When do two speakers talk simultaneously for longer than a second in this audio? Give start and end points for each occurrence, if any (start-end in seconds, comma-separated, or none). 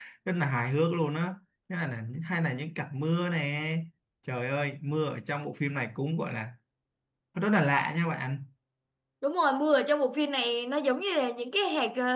none